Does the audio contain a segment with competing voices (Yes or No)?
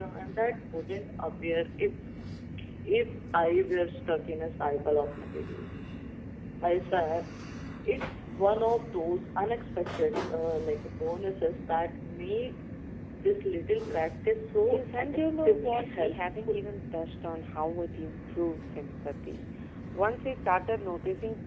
Yes